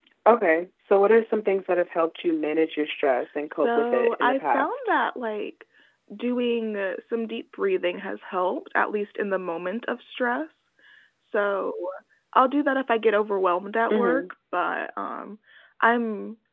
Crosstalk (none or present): present